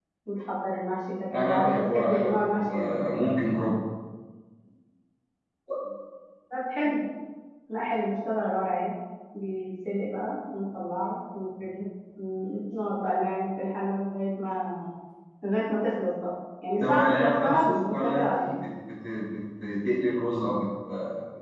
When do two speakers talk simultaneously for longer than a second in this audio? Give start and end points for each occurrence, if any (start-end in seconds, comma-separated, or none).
1.3-2.8, 16.8-18.4